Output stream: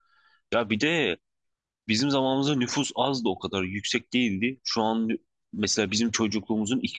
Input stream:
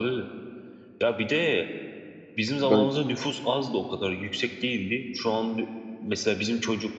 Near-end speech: present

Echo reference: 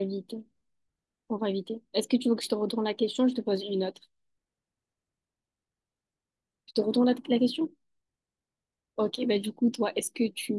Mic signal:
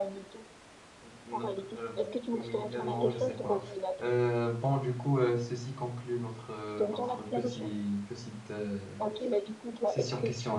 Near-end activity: present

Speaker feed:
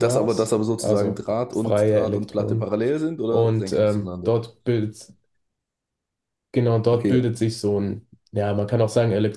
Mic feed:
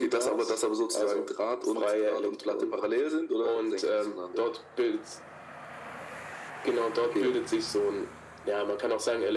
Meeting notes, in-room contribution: none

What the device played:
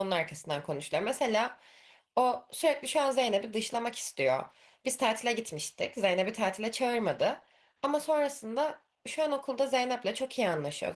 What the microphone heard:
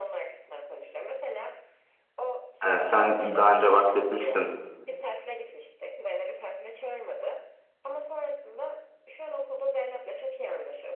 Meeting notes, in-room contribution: present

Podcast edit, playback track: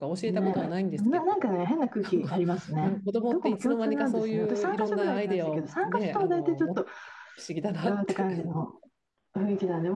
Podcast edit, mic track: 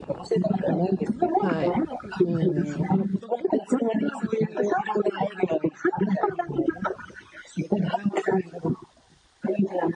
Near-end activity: present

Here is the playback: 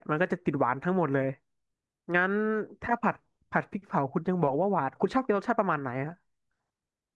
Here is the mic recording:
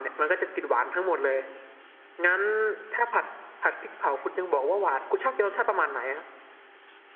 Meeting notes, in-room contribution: none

